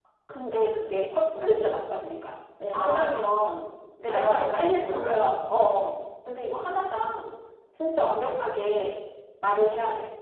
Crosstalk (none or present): present